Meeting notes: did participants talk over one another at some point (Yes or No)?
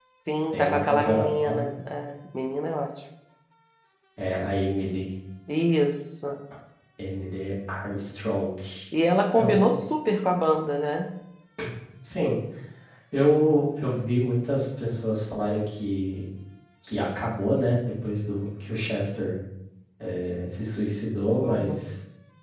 Yes